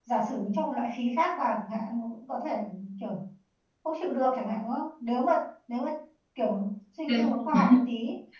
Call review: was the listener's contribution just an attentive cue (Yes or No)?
Yes